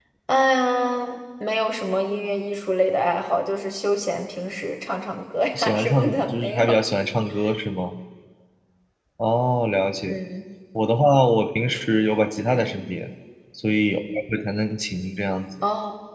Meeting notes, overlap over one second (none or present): present